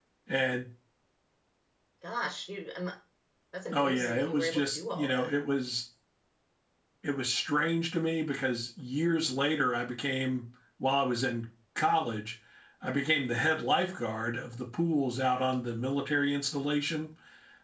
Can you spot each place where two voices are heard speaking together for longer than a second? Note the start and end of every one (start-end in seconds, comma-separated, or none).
3.7-5.3